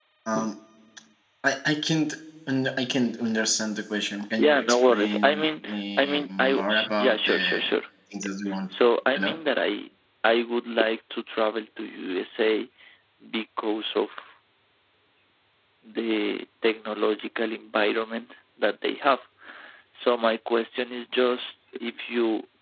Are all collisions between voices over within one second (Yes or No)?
No